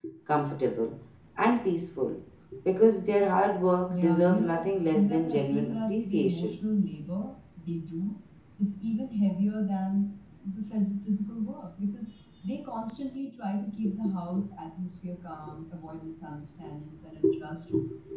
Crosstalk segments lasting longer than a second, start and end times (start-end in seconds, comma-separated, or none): 3.9-6.6